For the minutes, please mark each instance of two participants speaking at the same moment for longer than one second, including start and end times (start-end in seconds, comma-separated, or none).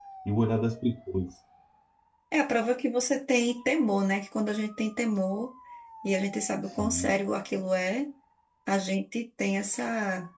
none